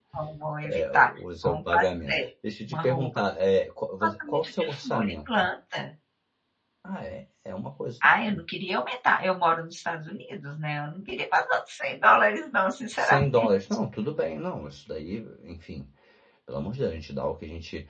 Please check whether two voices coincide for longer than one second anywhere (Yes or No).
Yes